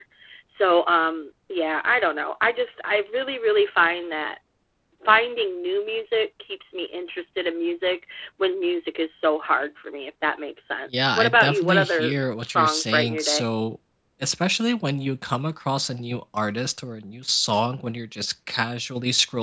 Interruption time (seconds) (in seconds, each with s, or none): 10.9 s